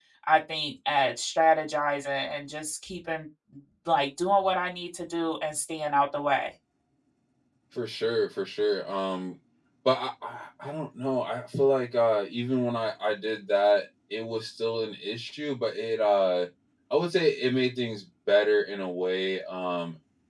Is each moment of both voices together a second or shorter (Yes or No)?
Yes